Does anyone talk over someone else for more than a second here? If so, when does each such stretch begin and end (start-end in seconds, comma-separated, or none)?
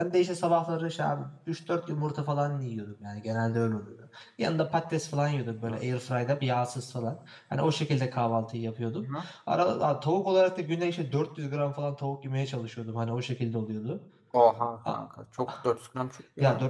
none